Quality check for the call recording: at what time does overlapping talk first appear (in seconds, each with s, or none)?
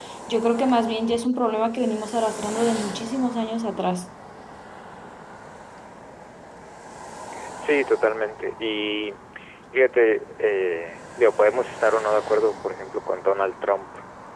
none